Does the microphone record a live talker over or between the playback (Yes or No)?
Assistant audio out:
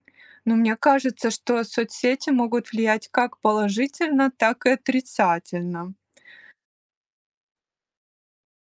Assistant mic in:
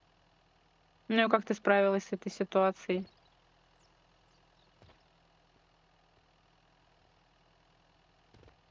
Yes